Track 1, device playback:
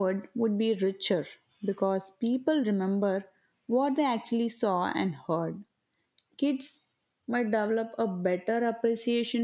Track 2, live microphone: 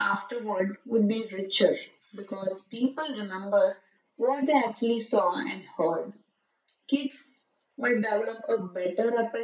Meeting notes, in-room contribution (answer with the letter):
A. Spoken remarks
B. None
B